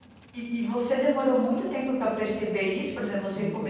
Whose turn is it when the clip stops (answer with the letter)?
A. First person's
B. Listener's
A